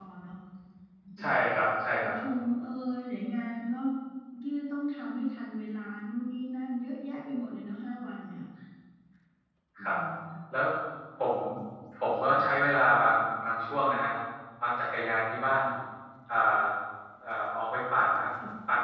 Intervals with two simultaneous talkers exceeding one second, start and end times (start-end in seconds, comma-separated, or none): none